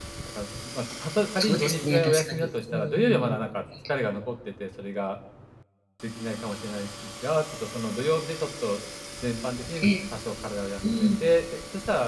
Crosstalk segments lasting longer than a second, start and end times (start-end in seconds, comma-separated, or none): 1.4-3.4